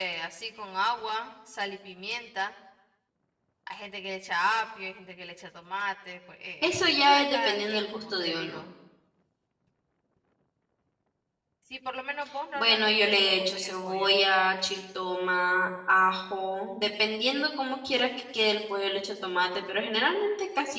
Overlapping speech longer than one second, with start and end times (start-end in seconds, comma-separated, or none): 6.6-8.6, 12.5-14.1